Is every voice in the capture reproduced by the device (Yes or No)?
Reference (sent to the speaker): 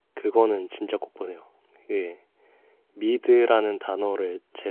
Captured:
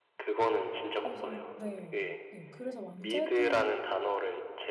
No